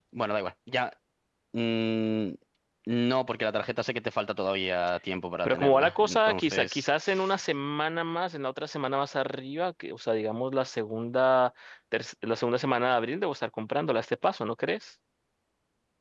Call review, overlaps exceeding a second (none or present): present